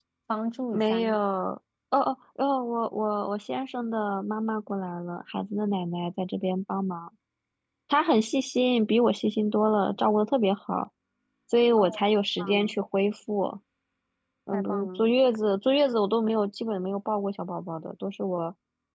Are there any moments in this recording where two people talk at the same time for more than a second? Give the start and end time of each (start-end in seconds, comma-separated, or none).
none